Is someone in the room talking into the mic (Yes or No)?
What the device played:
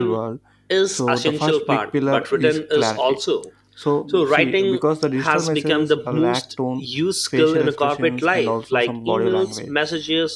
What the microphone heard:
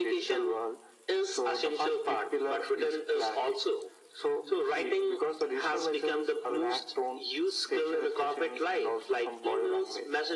No